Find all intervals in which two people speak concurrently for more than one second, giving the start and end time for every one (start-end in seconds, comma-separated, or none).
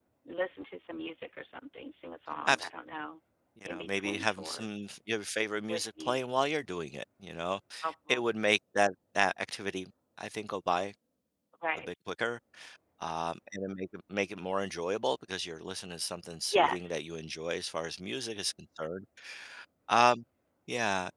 3.7-4.9